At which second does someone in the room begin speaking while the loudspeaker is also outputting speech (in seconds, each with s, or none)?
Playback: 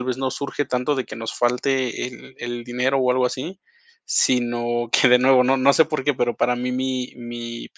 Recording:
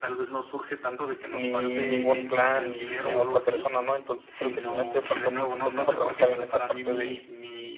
1.2 s